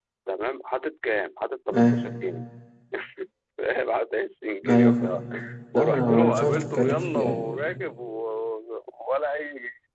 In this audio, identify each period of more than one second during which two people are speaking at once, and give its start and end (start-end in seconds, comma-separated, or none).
5.7-7.4